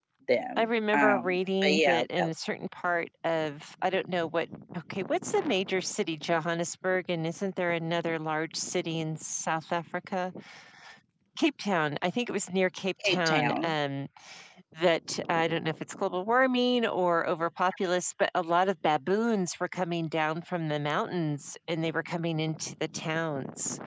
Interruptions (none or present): present